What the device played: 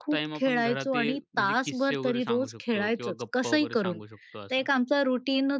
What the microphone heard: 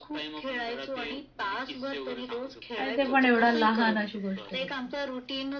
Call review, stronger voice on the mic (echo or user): user